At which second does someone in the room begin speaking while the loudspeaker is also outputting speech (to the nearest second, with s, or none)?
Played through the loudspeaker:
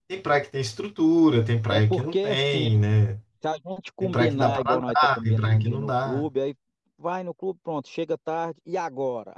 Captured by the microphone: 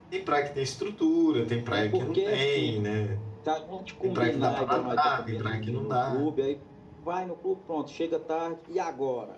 none